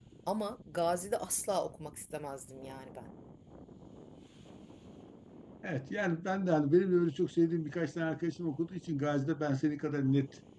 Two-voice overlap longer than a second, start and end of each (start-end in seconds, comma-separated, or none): none